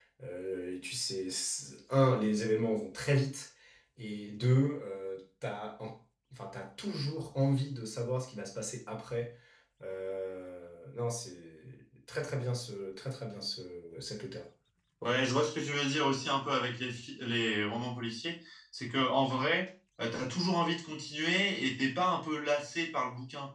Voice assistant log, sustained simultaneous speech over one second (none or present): none